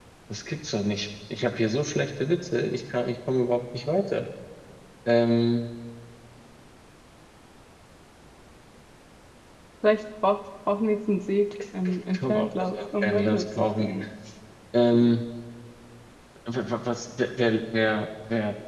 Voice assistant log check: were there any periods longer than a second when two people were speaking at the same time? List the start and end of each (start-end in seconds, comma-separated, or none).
11.8-13.9